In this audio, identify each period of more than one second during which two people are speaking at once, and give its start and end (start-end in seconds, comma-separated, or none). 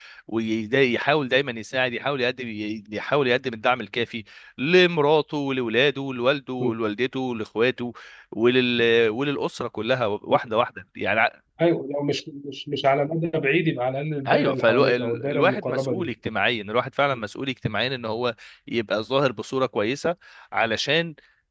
14.3-16.1